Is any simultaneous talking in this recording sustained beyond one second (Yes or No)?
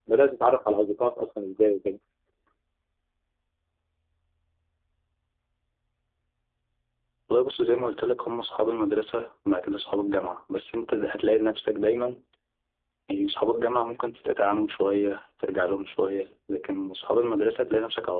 No